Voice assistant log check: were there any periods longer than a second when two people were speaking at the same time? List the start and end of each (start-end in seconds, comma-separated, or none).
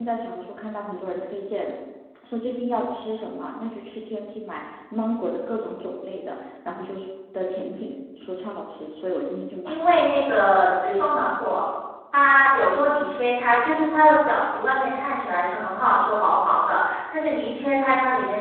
none